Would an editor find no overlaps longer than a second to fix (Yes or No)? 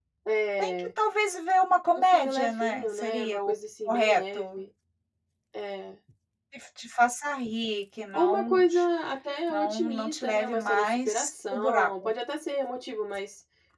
No